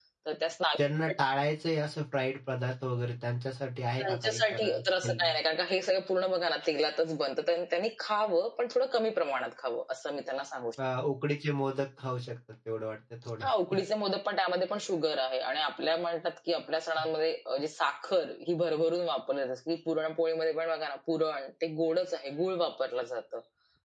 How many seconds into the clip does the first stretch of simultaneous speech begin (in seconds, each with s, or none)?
4.0 s